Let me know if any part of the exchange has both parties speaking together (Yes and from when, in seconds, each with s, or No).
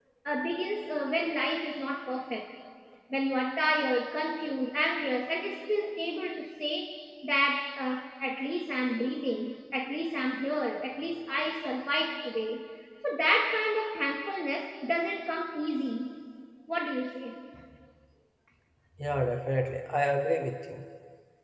No